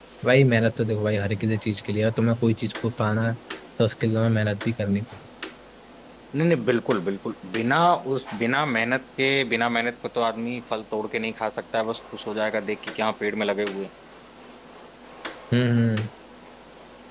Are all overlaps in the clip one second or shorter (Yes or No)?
Yes